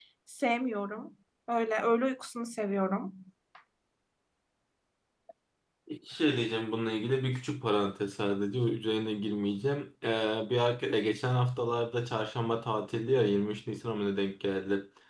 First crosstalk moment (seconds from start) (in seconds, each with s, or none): none